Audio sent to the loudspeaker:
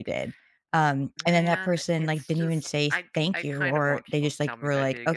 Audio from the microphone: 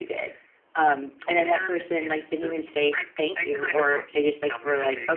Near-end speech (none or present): none